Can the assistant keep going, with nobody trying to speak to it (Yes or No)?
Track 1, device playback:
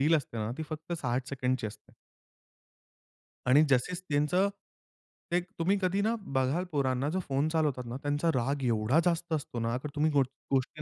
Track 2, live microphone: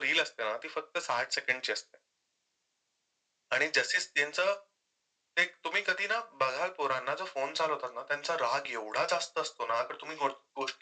Yes